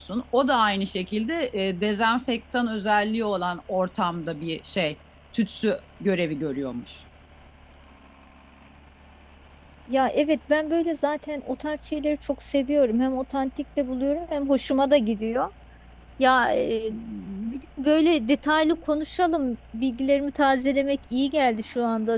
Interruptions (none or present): none